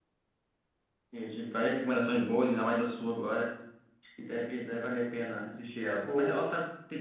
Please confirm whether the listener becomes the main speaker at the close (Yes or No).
No